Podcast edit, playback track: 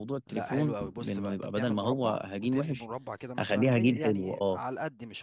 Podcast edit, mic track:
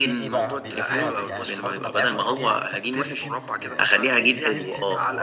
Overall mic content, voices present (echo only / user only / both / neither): both